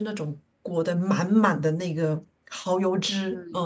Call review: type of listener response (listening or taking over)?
listening